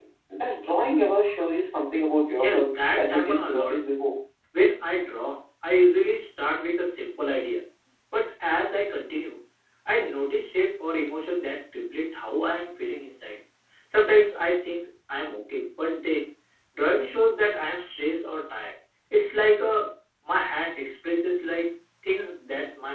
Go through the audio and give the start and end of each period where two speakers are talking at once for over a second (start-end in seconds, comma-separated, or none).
2.3-3.8